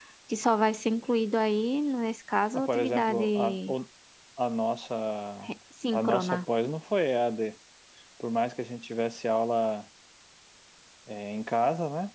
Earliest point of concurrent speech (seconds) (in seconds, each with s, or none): 2.5 s